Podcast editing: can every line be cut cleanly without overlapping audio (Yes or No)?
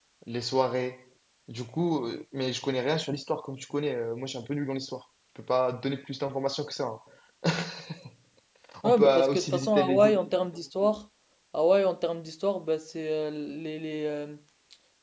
No